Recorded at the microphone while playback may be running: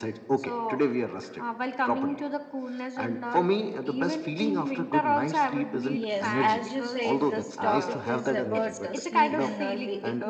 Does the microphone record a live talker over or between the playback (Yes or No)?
Yes